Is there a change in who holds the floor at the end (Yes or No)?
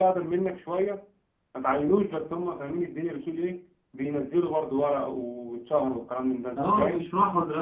Yes